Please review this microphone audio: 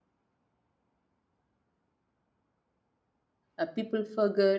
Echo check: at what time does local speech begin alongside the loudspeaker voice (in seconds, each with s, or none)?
3.6 s